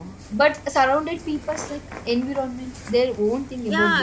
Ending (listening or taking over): taking over